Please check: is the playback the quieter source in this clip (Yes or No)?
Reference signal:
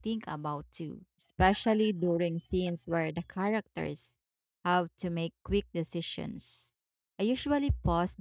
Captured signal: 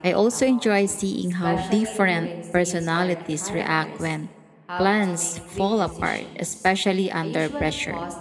Yes